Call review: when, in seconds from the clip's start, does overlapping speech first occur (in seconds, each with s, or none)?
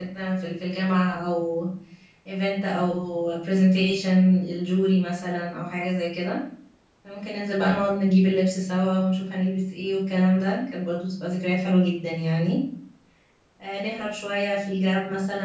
none